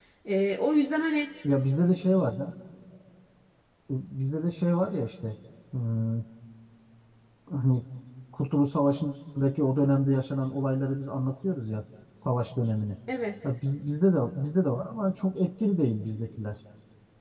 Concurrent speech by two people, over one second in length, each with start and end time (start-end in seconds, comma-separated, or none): none